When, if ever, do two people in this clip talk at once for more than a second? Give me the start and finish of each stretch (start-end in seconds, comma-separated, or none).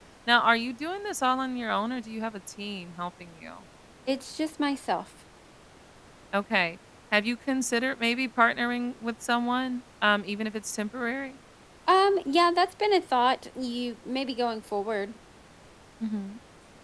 none